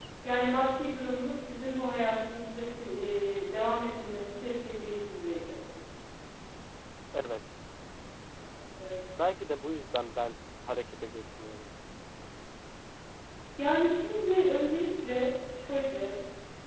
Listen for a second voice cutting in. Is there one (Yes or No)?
No